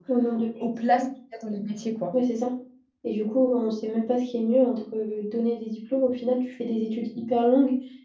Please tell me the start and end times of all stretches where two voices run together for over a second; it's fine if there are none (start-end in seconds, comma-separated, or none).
none